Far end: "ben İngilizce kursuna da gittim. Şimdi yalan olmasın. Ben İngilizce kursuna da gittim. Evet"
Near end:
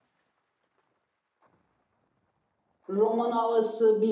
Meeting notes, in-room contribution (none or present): present